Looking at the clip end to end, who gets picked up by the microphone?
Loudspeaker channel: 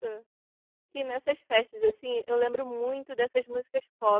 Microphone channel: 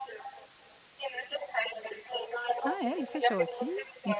both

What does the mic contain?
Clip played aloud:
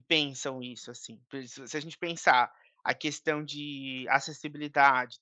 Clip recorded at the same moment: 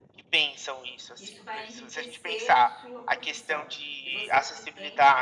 both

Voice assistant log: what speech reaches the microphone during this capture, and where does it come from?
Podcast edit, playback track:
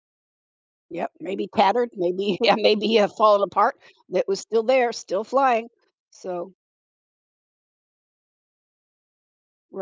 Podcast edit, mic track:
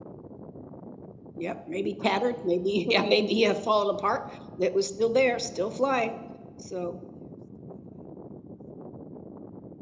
echo only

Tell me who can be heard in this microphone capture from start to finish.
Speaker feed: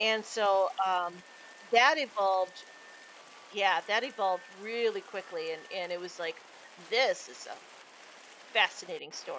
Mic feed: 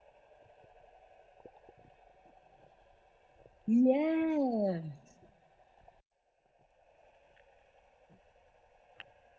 user only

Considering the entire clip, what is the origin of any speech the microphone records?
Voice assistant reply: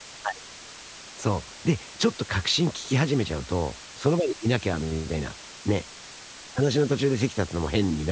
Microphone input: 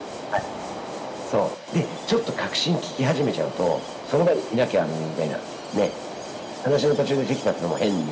echo only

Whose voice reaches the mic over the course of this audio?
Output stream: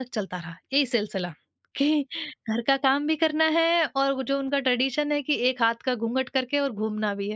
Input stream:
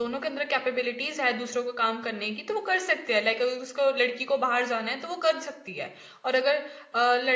user only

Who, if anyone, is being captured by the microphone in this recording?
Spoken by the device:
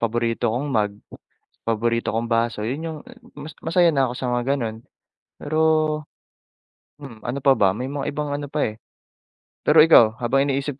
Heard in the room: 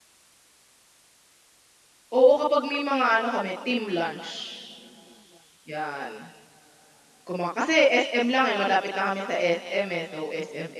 user only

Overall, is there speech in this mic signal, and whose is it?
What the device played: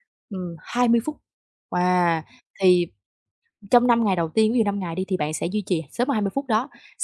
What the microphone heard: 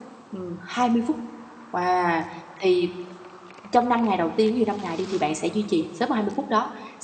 echo only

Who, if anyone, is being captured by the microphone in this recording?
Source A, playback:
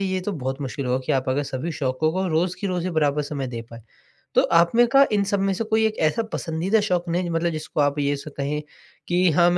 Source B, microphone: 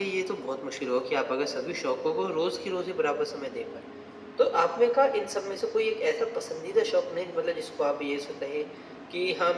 echo only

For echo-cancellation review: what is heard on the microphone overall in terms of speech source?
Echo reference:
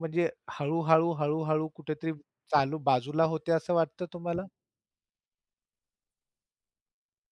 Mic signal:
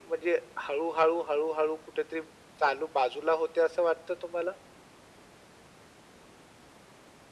echo only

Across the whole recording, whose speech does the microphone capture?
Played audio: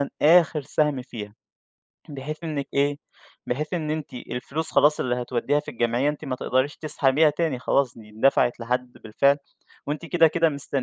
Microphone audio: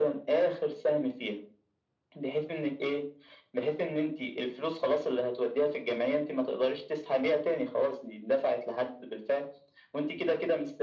echo only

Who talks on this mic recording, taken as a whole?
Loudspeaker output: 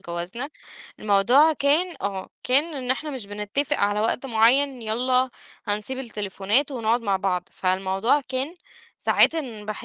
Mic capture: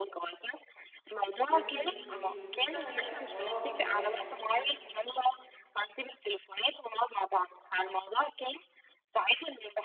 both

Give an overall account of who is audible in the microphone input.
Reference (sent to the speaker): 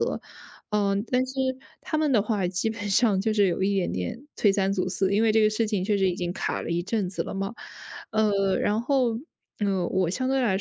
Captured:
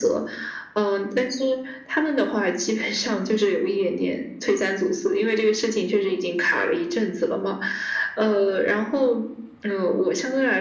echo only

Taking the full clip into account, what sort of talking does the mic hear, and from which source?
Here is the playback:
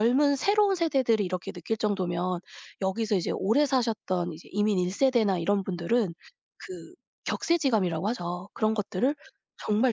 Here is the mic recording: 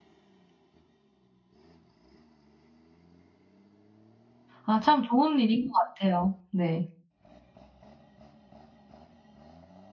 user only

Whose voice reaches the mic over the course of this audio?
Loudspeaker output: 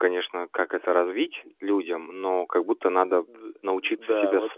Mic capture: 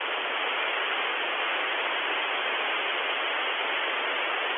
neither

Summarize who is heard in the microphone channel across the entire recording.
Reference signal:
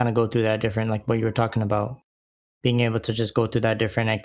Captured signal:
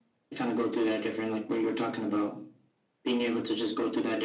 echo only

